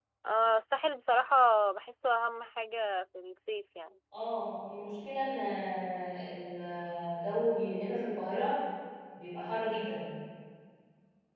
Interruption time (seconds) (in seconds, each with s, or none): none